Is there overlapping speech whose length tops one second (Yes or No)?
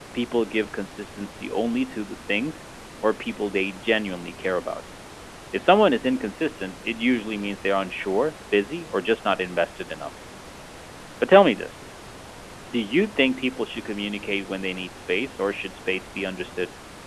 No